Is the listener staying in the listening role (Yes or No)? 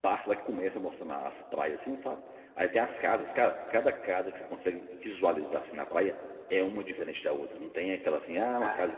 Yes